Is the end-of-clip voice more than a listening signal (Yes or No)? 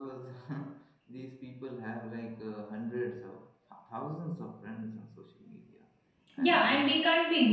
Yes